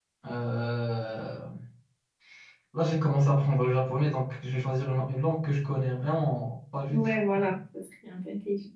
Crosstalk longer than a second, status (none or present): none